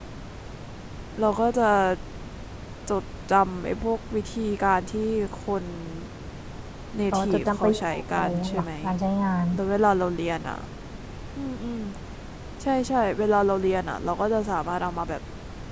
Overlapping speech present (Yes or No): Yes